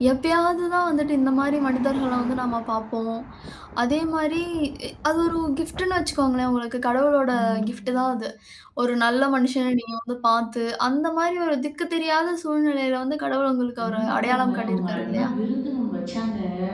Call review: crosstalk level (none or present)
present